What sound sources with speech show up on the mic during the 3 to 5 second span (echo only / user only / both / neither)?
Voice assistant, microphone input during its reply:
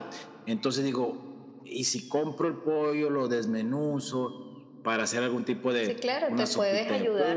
echo only